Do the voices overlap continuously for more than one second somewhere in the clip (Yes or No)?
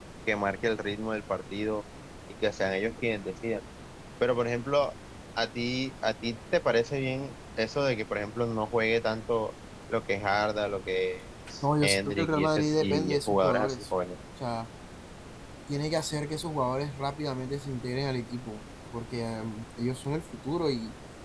Yes